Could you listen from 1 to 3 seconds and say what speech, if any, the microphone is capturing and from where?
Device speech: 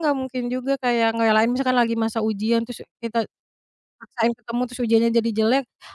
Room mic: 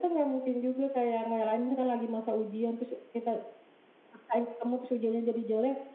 echo only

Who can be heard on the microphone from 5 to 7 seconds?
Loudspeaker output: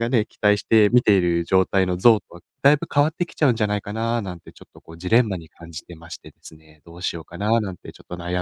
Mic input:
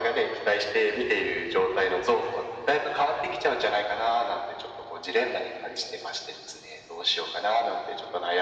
echo only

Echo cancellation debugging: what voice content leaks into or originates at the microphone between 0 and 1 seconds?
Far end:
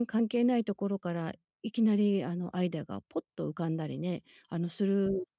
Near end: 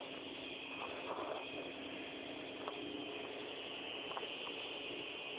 neither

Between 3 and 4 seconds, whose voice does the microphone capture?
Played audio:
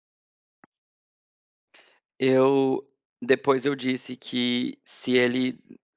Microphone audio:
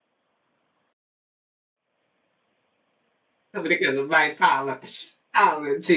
user only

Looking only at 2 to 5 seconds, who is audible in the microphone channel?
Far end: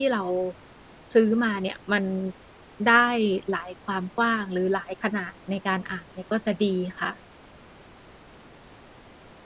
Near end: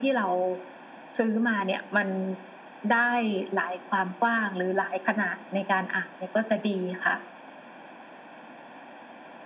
echo only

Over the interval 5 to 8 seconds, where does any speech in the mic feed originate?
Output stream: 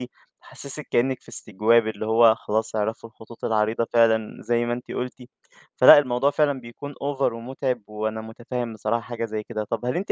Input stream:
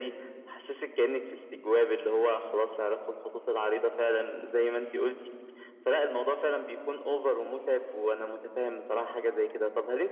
echo only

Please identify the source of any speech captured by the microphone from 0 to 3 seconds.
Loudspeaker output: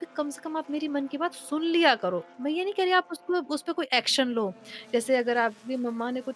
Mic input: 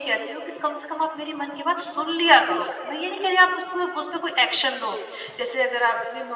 echo only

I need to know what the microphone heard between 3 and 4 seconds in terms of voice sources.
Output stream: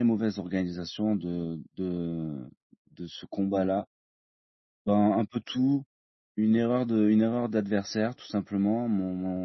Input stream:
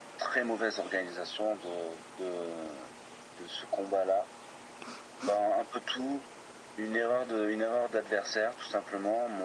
echo only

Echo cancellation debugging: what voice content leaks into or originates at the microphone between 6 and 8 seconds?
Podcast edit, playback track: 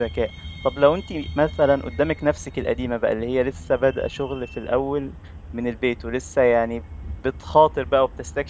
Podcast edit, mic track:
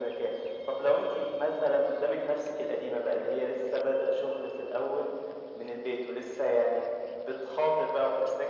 echo only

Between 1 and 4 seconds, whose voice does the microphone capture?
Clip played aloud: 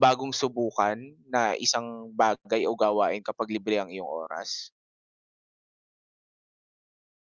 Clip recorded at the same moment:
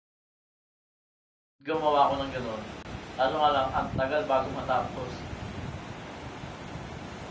user only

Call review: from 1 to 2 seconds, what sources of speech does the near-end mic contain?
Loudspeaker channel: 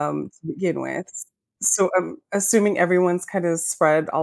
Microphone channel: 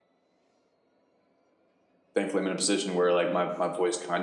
neither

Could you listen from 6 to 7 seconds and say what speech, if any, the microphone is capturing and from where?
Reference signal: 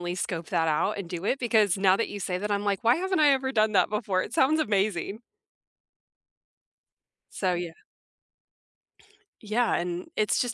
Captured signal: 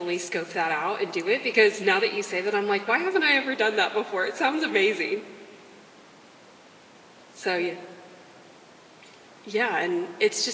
neither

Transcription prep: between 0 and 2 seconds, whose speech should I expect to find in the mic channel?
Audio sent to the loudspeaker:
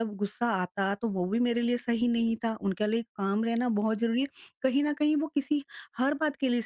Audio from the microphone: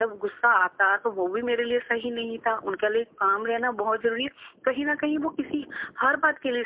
echo only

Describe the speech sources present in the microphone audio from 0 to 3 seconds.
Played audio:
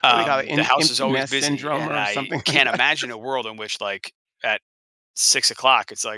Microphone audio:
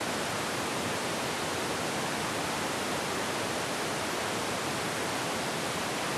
neither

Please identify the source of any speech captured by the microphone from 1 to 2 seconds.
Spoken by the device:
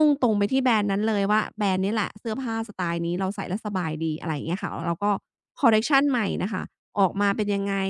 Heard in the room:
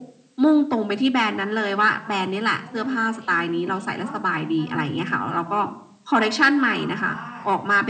both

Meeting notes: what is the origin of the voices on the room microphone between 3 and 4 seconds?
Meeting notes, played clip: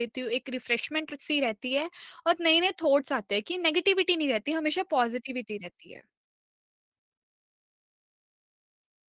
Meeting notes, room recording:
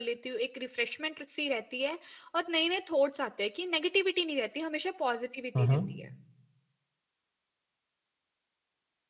echo only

